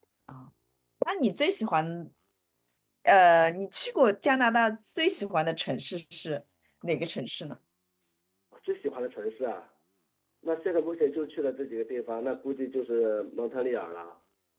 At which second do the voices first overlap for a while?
none

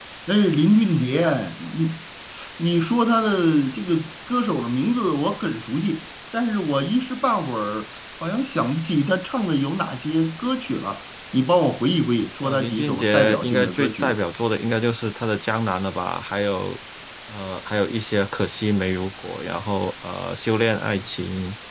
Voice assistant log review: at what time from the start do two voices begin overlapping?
12 s

